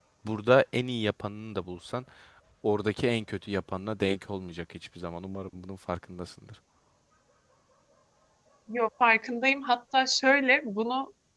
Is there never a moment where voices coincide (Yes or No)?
Yes